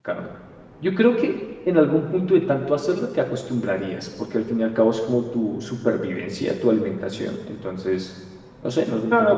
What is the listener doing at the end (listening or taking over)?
taking over